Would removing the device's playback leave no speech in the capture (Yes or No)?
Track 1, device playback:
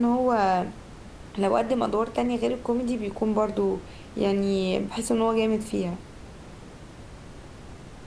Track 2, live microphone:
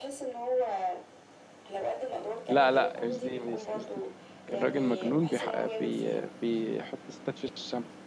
No